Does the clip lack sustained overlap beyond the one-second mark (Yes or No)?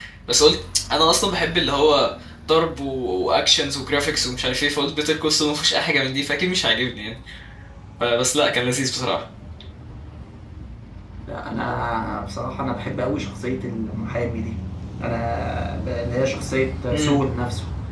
Yes